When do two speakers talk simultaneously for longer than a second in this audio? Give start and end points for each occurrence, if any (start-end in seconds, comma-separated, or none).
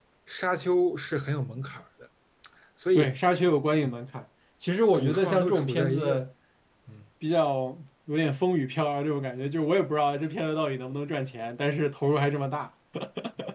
4.9-6.3